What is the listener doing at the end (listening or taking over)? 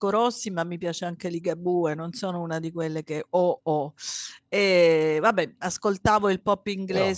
listening